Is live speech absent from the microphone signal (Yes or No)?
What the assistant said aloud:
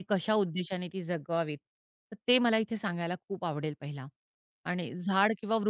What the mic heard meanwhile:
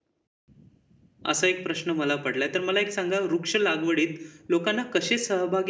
No